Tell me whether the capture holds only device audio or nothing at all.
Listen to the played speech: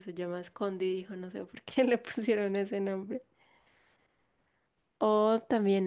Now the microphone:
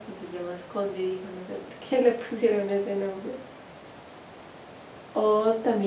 Yes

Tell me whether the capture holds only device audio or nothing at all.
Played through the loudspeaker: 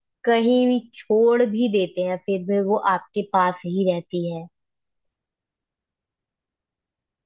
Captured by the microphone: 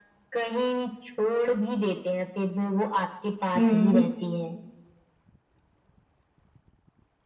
No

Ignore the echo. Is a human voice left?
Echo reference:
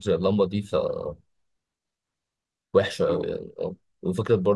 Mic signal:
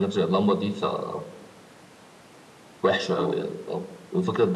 No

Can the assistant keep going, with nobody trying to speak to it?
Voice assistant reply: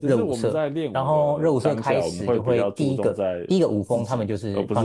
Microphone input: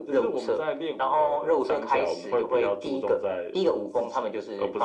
Yes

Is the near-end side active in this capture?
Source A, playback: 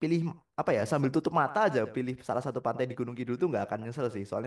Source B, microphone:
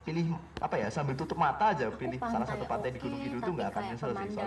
Yes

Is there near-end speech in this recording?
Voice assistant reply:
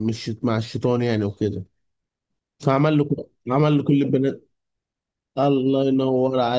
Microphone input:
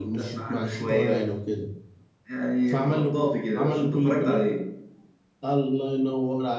Yes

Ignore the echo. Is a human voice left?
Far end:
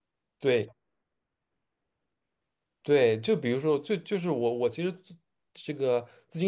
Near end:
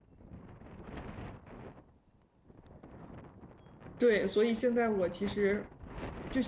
Yes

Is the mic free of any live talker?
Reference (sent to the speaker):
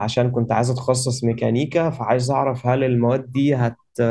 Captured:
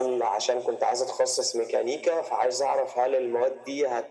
Yes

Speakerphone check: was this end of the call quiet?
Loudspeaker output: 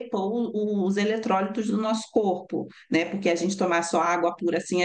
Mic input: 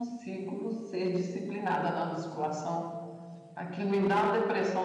No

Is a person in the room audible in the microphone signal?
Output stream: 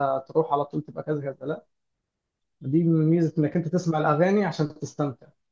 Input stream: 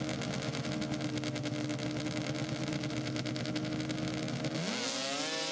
No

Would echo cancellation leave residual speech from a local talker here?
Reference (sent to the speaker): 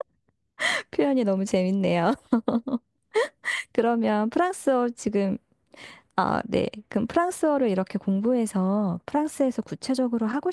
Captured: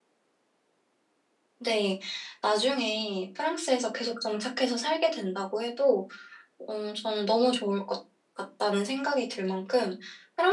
Yes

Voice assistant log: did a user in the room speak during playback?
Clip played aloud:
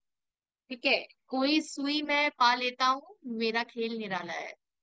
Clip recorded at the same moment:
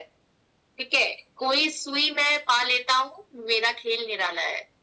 No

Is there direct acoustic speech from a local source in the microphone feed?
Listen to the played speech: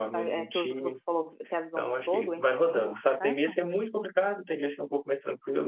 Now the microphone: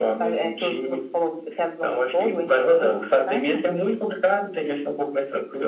No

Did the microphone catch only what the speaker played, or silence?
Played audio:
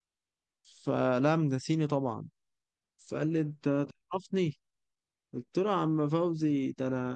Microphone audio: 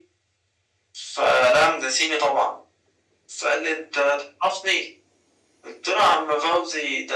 Yes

